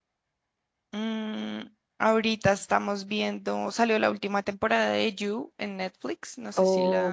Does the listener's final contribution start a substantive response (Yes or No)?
Yes